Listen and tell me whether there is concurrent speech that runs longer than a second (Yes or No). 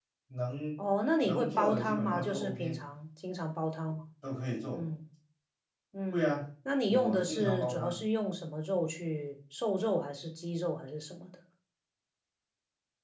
Yes